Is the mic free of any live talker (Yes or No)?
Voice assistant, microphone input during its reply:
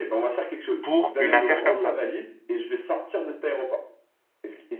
No